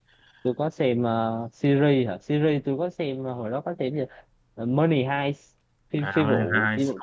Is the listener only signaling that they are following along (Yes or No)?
No